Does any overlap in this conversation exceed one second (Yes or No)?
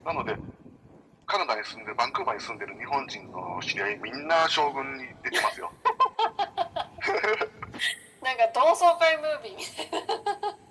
No